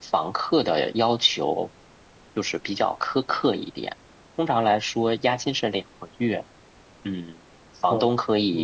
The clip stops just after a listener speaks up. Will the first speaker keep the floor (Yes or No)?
Yes